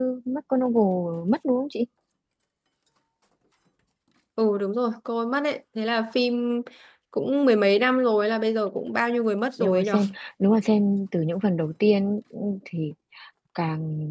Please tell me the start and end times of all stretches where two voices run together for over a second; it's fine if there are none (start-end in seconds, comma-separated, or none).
none